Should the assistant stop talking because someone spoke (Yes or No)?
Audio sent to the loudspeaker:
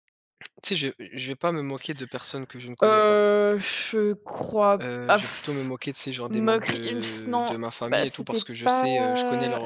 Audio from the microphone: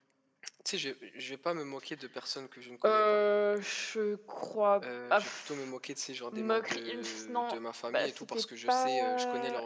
No